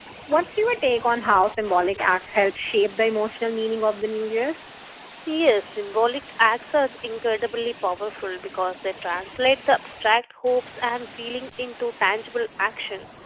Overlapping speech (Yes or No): No